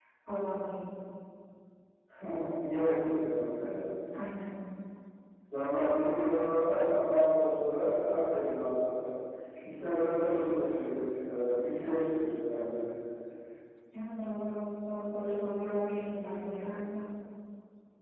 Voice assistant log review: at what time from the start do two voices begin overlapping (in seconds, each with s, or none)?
none